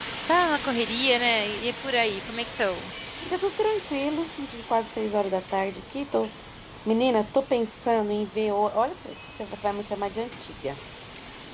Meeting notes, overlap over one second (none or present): none